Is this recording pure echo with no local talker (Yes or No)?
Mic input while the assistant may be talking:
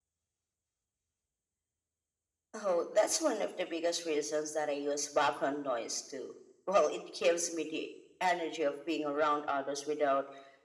Yes